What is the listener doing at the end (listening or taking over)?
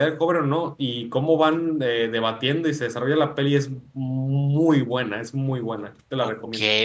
taking over